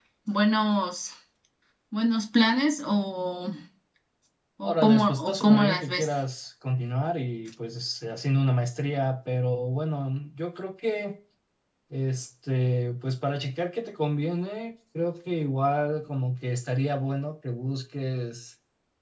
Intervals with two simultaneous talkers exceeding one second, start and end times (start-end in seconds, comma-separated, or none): 4.6-6.1